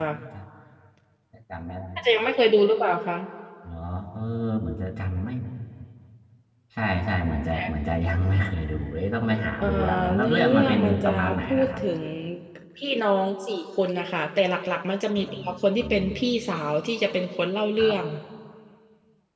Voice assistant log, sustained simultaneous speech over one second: present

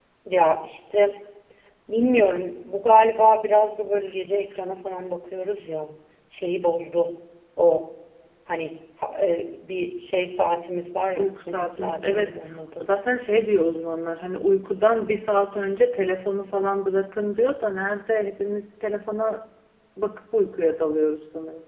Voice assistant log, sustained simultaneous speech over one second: present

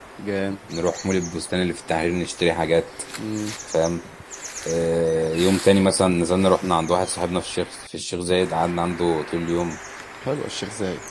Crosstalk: none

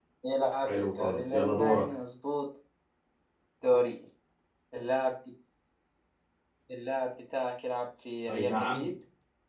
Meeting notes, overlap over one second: present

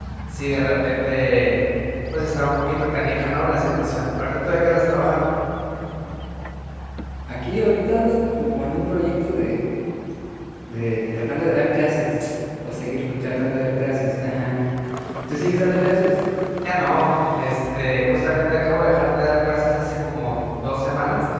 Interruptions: none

